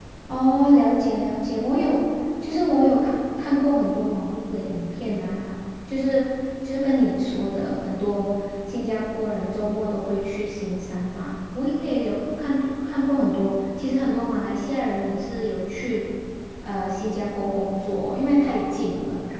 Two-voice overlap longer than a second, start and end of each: none

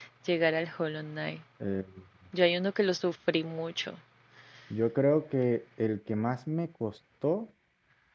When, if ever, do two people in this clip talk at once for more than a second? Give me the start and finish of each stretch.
none

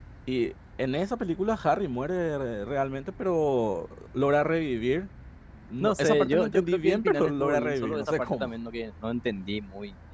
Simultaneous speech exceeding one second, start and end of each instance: 5.8-8.5

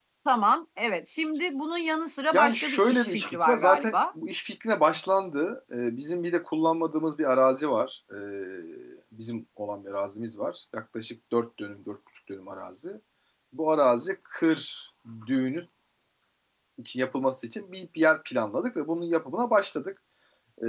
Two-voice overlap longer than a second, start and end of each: 2.3-4.0

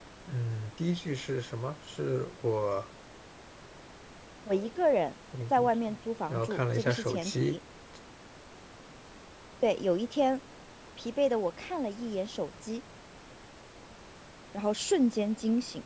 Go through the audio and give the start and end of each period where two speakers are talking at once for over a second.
6.3-7.6

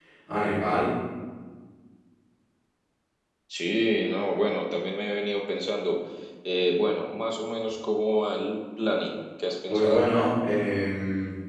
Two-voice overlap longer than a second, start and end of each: none

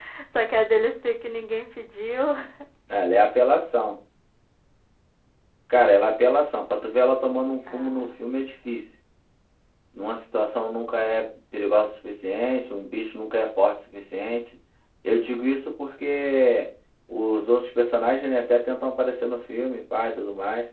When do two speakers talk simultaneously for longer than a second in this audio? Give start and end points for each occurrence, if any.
none

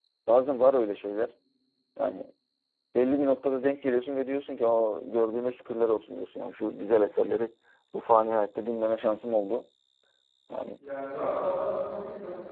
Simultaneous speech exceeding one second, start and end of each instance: none

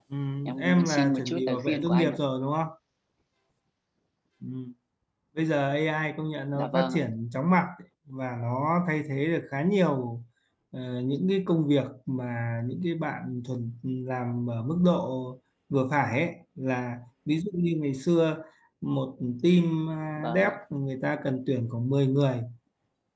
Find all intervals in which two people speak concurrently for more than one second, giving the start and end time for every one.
0.6-2.2

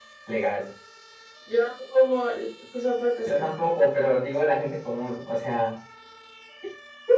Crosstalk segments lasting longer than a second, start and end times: none

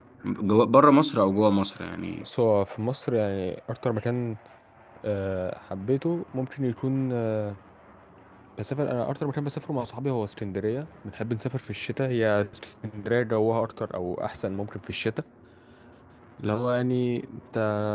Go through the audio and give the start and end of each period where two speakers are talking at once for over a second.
none

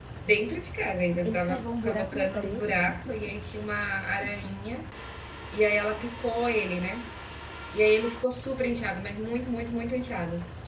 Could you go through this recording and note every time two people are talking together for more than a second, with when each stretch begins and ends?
1.2-2.8

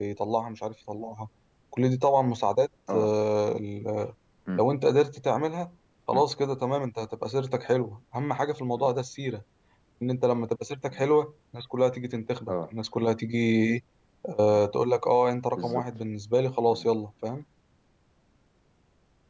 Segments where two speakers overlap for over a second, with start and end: none

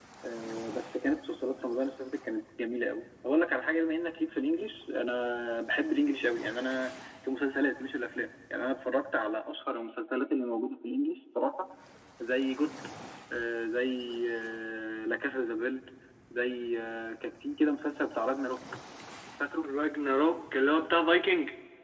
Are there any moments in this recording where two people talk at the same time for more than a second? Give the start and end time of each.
none

